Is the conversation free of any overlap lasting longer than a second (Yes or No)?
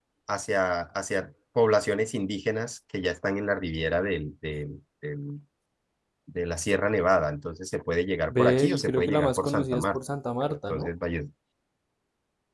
No